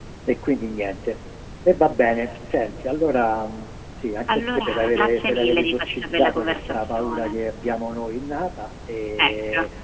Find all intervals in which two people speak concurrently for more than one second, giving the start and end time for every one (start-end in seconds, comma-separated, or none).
4.3-7.3